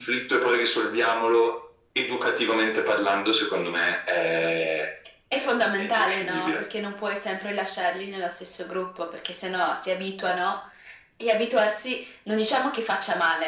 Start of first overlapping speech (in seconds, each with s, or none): 5.3 s